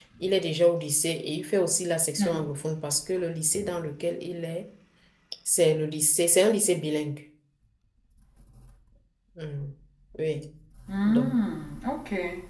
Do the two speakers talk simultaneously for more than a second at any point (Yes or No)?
No